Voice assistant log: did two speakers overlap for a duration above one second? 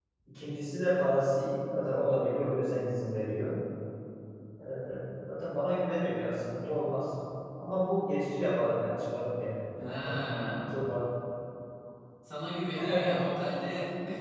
No

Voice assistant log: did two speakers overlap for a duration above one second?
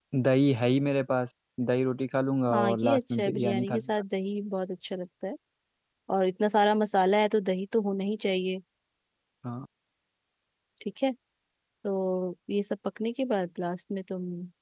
Yes, from 2.5 s

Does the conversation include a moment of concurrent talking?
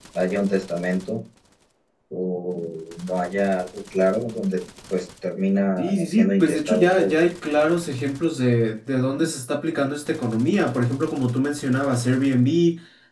Yes, from 5.8 s

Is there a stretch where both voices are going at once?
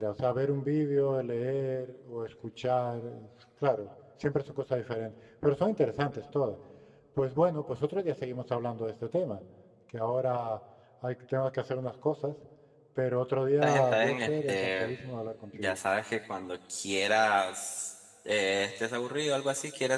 Yes, from 13.6 s

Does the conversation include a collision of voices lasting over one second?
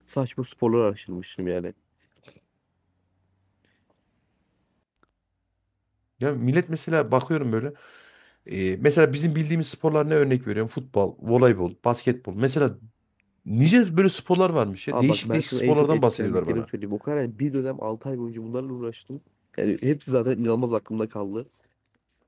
Yes, from 14.9 s

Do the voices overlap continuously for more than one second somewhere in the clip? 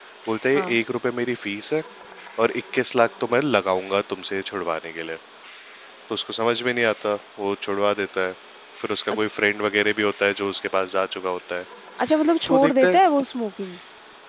No

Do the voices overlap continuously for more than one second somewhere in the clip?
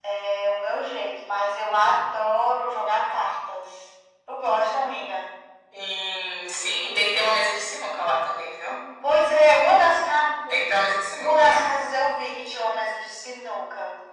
No

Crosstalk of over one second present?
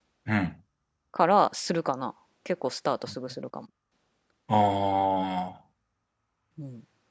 No

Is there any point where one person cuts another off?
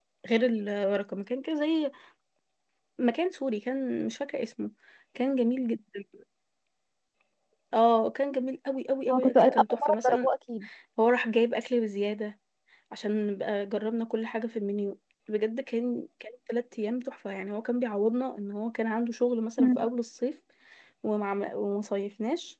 Yes, from 9.1 s

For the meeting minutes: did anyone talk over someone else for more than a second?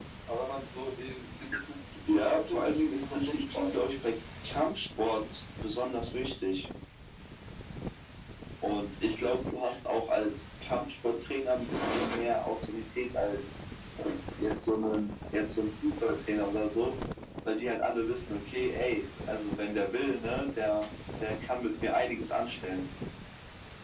Yes, from 2.1 s

